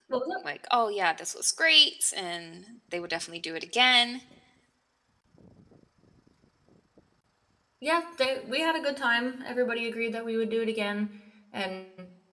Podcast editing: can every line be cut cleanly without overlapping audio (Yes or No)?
Yes